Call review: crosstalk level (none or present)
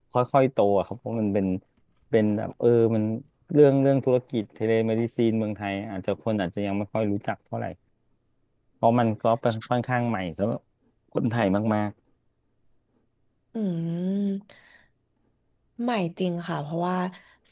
none